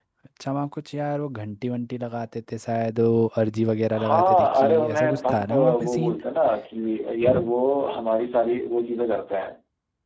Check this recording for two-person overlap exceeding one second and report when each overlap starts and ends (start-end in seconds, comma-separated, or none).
4.0-6.2